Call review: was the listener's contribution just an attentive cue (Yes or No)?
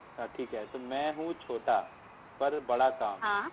Yes